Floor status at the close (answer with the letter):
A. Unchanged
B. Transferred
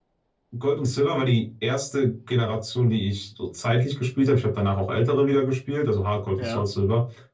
A